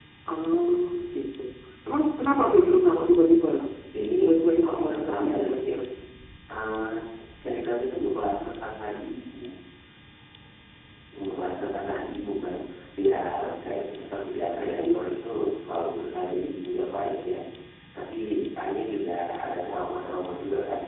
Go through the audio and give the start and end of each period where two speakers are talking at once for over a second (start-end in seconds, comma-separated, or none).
4.2-5.5